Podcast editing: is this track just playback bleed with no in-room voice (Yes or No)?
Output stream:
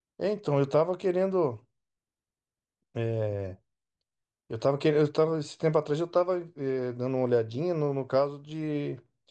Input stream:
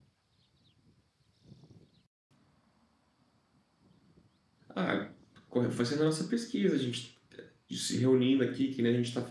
No